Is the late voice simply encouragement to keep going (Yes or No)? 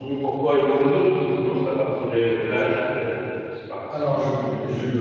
No